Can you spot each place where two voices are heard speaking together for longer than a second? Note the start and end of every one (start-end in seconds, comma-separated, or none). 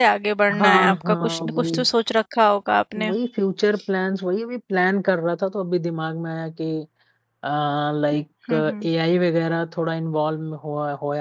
0.6-1.9